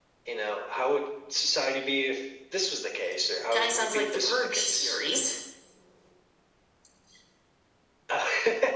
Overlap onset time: 3.5 s

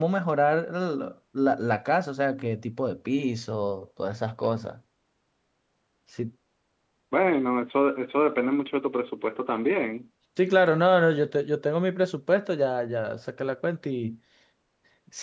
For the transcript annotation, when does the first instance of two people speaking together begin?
none

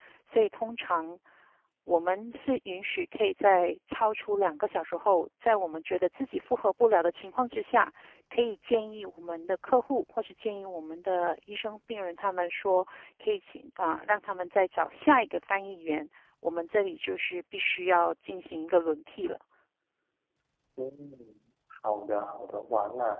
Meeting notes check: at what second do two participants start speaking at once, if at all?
none

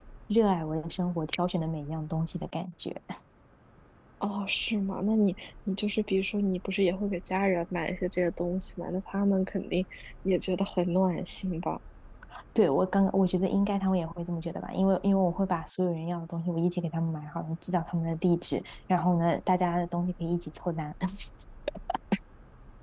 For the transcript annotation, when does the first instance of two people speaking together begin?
none

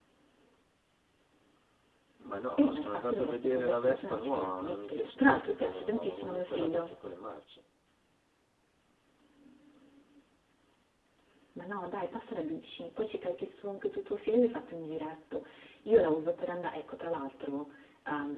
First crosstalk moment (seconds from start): 2.6 s

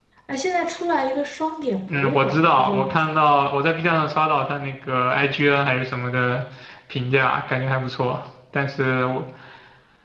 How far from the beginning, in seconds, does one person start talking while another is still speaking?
1.9 s

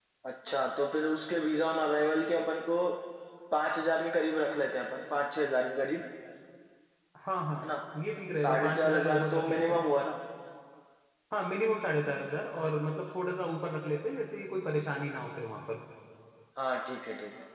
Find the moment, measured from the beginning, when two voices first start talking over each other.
8.4 s

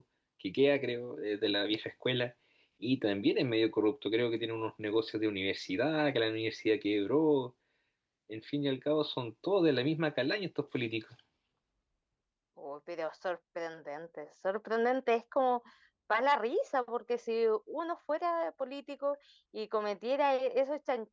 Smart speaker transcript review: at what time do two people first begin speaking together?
none

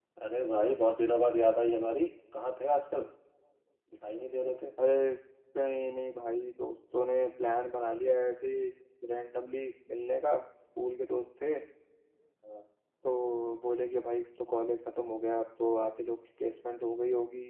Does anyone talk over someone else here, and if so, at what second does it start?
none

